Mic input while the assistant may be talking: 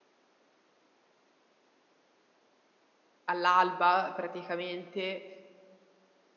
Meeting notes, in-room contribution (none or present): present